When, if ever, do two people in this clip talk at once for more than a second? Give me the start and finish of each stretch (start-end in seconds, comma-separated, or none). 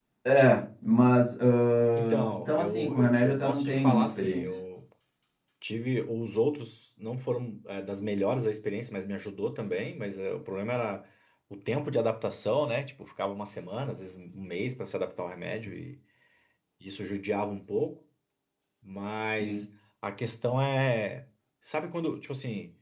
2.0-4.5